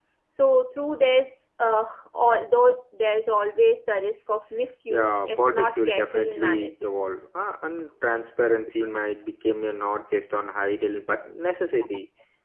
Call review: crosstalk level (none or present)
present